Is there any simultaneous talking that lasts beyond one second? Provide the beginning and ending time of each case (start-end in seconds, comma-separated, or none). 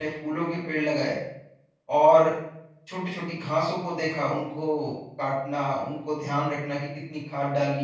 none